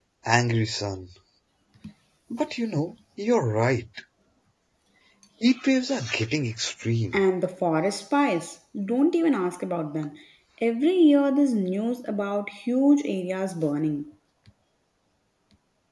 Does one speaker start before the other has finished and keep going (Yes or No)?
No